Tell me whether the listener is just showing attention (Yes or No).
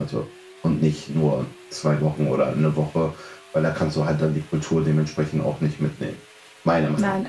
No